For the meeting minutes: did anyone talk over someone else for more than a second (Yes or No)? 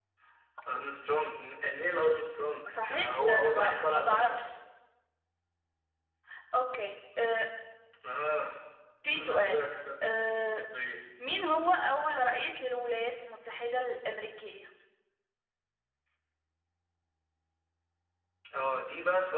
Yes